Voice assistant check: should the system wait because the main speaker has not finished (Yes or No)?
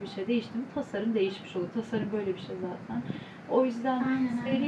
Yes